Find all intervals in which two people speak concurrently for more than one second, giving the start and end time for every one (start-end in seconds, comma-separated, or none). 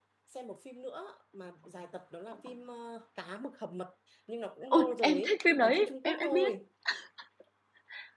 4.7-6.5